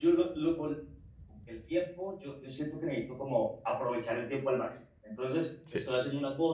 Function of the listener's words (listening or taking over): listening